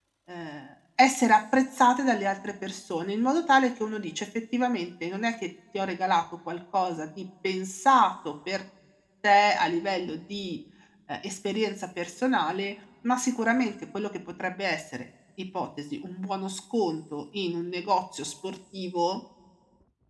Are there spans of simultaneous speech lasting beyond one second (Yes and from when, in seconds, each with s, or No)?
No